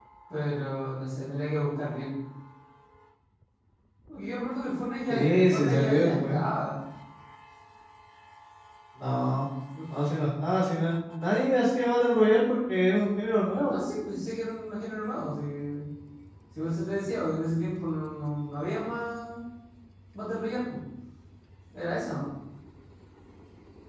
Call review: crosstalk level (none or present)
present